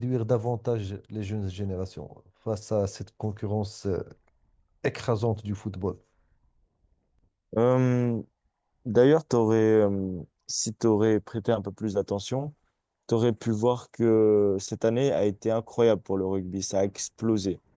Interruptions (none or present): none